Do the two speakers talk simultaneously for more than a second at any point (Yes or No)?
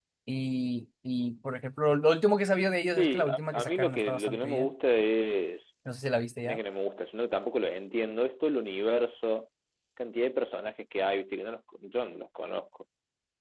Yes